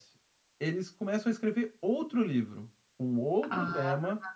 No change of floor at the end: Yes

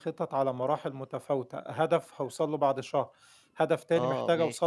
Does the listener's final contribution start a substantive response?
No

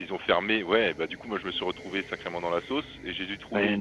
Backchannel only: Yes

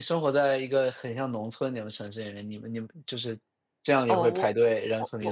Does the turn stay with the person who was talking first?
No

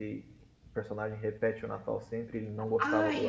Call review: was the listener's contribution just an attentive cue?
No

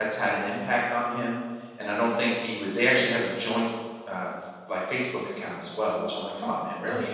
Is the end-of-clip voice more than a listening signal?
No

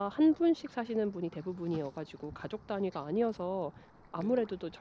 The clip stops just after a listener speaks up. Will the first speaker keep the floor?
Yes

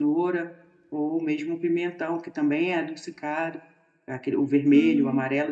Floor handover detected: No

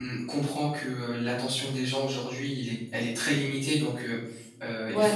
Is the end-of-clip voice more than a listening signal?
No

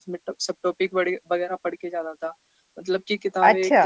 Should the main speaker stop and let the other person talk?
No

